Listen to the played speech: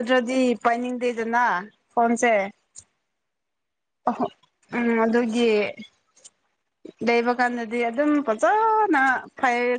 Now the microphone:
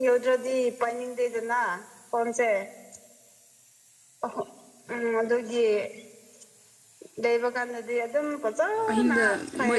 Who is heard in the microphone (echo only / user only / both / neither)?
both